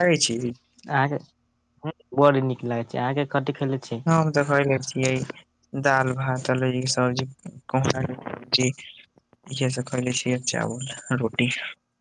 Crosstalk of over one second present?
No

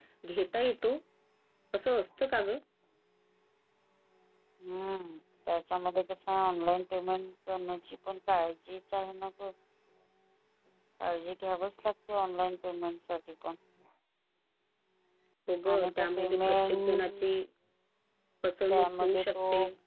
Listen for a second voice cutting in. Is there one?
Yes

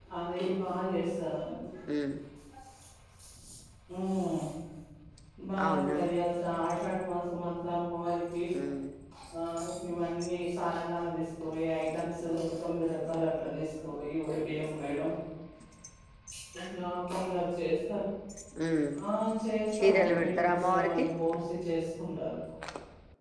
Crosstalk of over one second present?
Yes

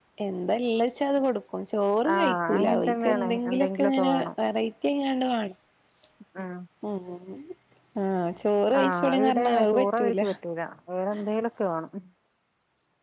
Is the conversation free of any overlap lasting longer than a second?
No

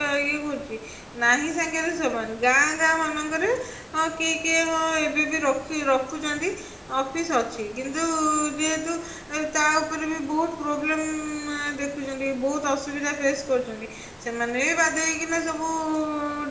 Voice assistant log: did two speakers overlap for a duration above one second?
No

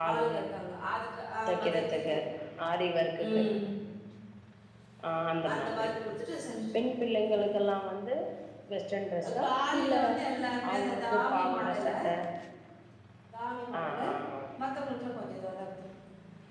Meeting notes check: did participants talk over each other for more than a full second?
Yes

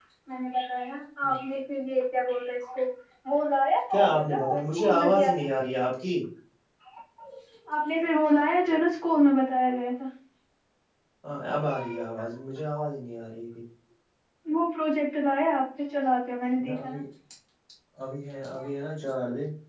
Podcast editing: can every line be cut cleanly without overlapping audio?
No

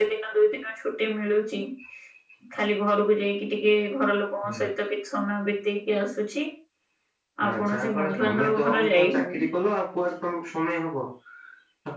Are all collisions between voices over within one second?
No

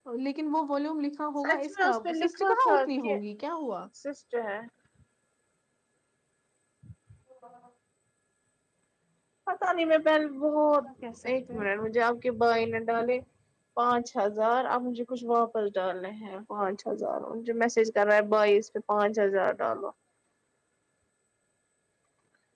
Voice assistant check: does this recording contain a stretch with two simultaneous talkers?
Yes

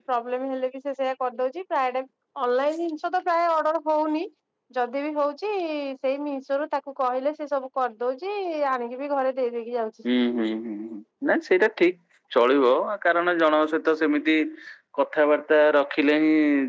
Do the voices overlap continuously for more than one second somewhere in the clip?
No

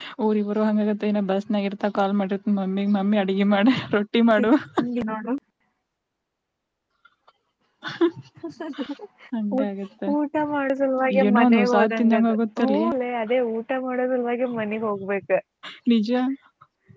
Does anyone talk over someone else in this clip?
Yes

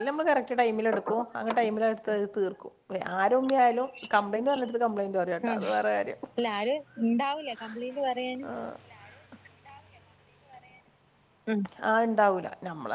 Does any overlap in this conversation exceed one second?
No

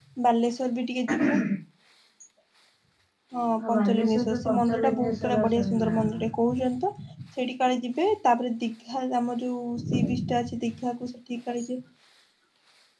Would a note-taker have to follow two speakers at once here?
Yes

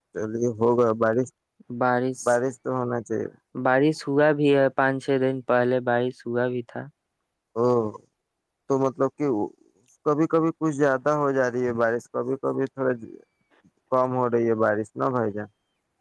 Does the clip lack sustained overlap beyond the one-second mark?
Yes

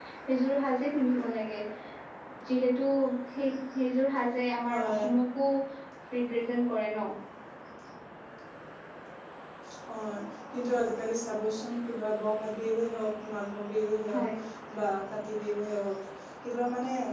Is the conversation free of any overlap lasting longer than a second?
Yes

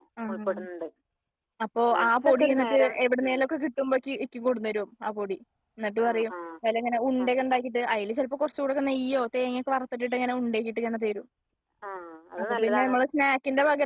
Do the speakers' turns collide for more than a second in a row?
Yes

